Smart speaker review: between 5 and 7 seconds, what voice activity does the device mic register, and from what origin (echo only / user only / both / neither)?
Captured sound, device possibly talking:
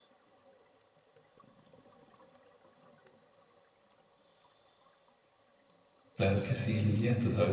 user only